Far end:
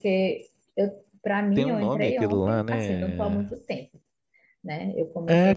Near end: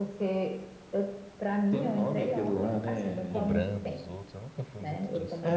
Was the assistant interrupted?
Yes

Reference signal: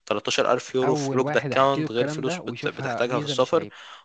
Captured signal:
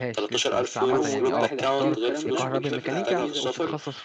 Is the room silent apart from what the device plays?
No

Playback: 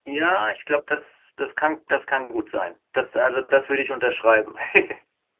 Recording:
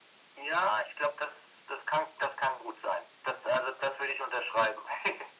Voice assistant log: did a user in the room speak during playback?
No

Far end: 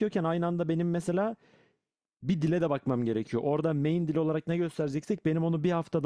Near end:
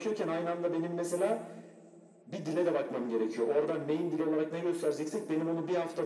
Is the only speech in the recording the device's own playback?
Yes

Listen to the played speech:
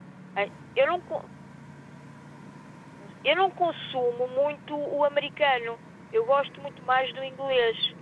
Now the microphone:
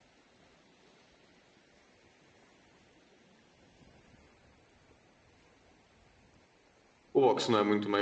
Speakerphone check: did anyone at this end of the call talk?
Yes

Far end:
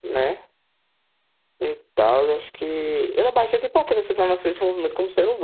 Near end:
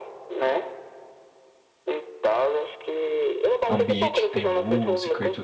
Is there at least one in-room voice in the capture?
Yes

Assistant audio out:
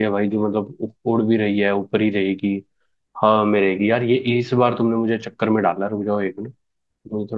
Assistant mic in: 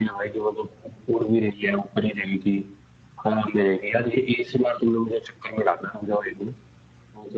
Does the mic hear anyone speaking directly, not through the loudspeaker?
No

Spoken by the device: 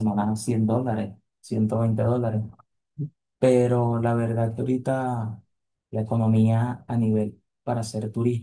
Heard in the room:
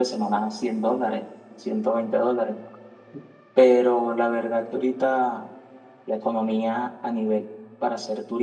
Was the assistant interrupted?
No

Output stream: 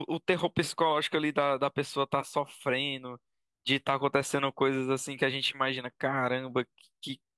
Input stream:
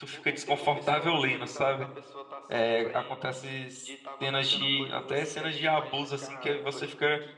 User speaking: Yes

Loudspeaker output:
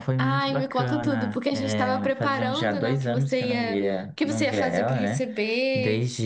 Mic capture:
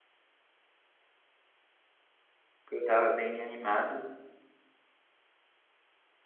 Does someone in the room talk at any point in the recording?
Yes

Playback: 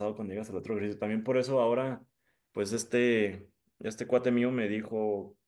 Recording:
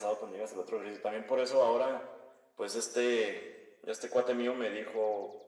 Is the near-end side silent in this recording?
Yes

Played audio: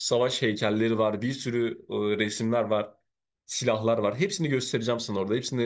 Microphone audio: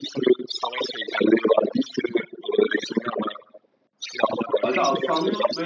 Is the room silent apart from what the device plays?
No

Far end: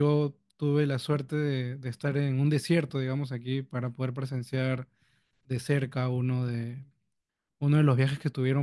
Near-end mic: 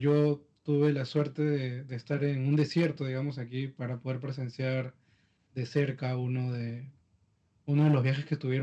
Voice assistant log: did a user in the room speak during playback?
No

